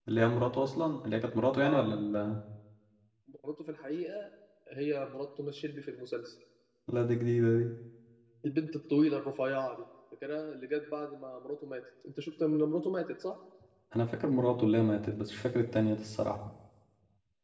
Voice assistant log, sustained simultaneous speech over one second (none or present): none